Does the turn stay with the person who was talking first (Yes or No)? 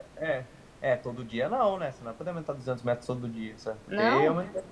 Yes